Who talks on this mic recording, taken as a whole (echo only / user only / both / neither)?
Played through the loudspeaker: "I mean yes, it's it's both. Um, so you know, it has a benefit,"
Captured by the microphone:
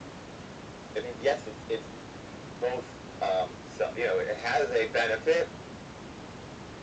echo only